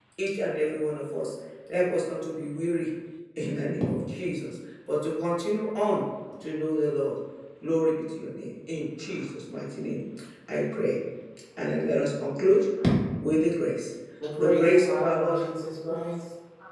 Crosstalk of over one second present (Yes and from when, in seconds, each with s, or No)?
Yes, from 14.2 s